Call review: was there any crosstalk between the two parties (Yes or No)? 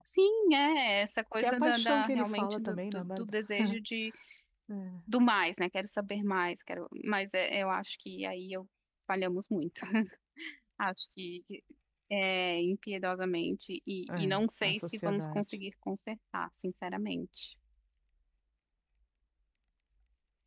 Yes